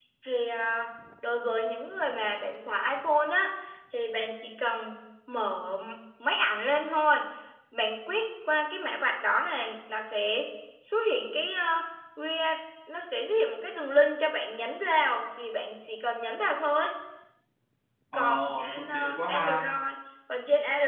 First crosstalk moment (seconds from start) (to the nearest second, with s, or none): 18 s